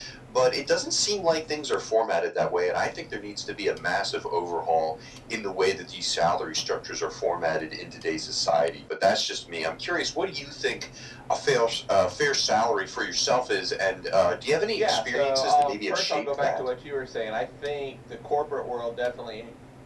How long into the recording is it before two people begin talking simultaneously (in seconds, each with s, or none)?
14.8 s